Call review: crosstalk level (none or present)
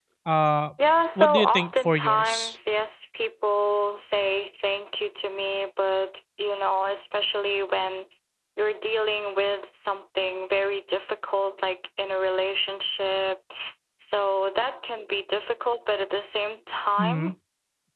present